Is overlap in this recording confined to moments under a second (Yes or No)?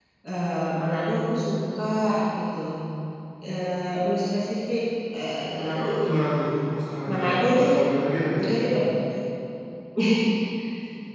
No